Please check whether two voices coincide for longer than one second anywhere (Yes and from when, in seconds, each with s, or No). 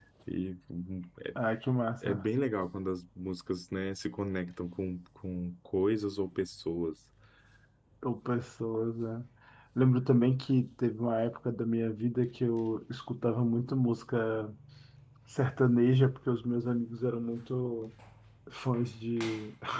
No